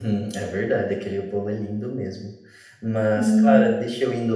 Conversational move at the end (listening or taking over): listening